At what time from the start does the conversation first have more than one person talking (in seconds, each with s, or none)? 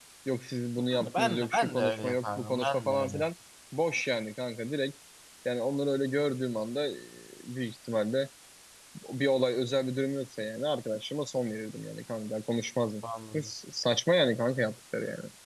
0.9 s